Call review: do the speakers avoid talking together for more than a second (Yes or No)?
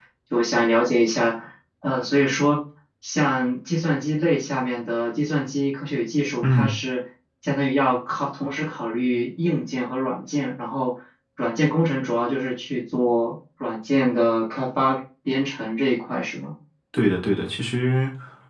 Yes